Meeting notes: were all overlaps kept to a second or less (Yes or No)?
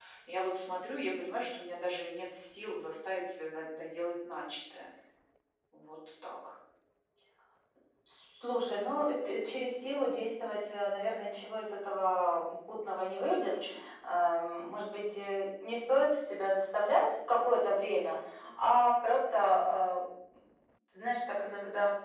Yes